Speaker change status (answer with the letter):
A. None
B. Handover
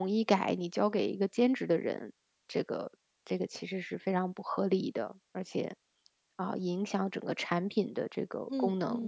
B